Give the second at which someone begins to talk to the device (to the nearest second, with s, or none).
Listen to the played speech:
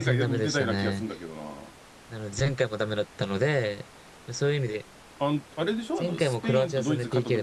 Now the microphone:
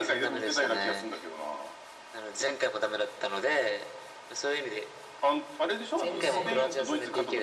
6 s